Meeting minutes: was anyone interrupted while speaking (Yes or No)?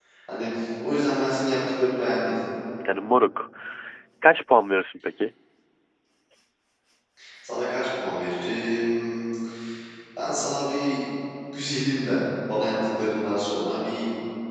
No